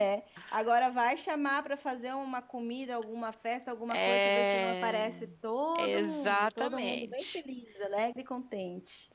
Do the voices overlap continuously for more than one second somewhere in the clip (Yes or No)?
Yes